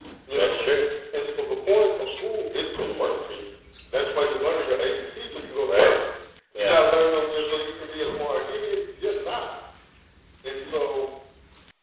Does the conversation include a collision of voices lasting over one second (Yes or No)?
No